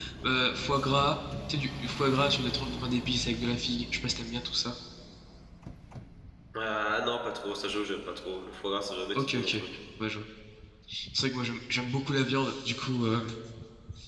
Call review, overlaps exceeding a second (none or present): none